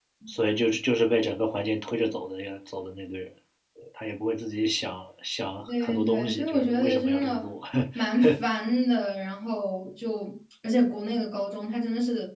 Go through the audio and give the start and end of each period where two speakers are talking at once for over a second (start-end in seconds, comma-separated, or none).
5.8-7.5